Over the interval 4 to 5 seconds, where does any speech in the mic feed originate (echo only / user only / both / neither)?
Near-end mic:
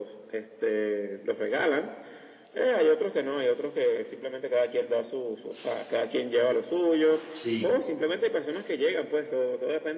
echo only